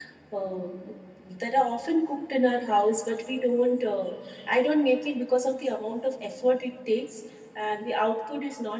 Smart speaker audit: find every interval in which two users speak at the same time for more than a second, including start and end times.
none

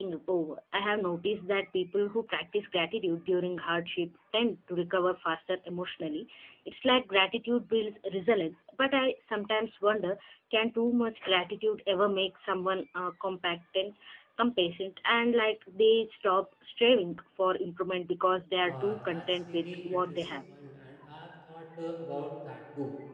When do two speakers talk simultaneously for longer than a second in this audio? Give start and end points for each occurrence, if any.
18.6-20.2

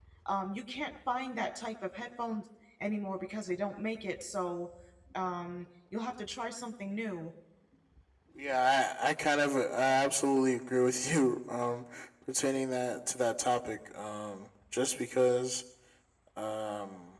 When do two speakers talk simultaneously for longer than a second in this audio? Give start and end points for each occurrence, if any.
none

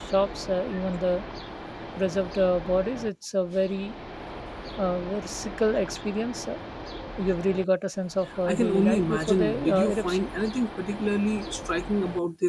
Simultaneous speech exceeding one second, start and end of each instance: 8.4-10.3

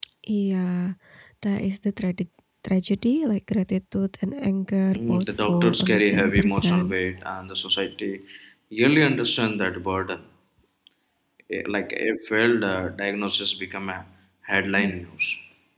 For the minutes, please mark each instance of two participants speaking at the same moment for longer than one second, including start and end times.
4.9-6.9

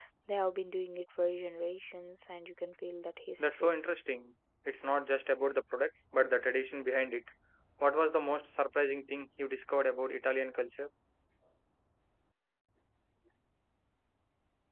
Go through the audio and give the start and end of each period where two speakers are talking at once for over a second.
none

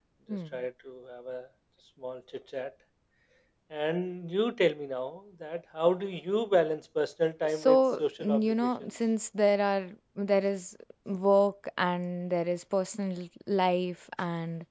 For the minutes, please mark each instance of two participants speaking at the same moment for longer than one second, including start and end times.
7.4-8.9

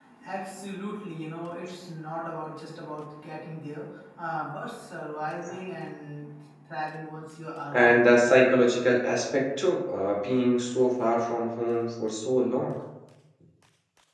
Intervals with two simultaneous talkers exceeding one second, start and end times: none

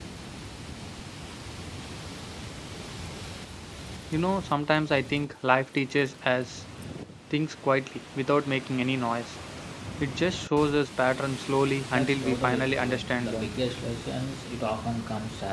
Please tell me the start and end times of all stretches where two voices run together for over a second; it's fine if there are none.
11.9-13.5

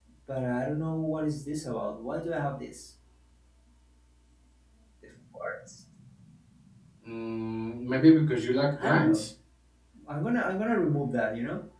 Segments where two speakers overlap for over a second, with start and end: none

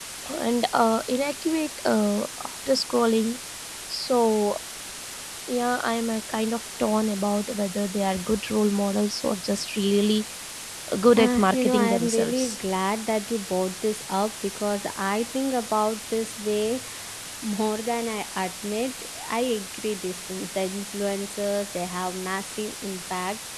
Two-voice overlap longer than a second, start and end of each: 11.2-12.6

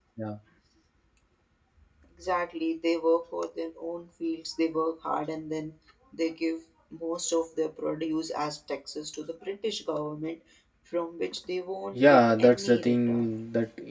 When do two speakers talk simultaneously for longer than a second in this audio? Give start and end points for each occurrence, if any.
11.9-13.3

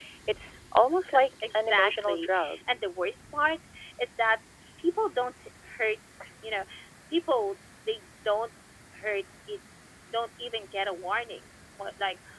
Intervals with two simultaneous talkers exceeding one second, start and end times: 1.1-2.3

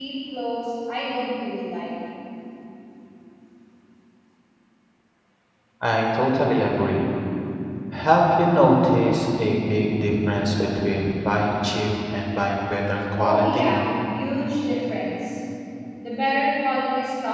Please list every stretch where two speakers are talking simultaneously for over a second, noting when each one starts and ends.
none

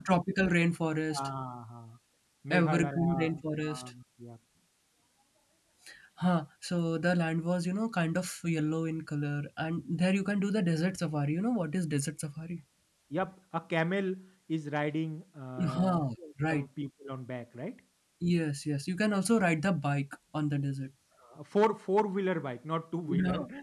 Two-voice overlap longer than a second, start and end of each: 2.5-3.9

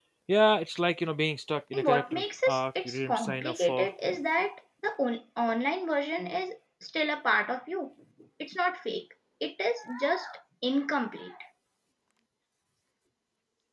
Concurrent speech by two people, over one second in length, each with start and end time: 1.7-3.9

